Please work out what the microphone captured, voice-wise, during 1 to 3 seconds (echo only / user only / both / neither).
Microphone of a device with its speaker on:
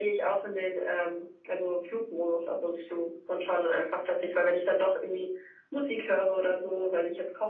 echo only